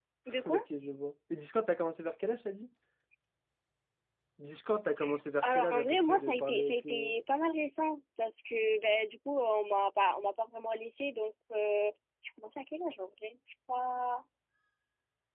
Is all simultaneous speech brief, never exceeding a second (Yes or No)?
No